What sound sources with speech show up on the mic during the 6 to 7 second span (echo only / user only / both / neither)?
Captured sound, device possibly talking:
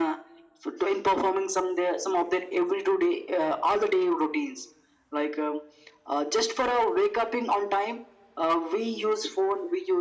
echo only